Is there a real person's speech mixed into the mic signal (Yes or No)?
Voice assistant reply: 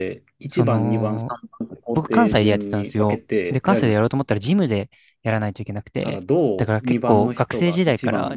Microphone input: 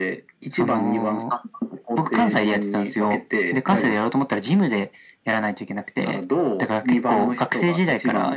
Yes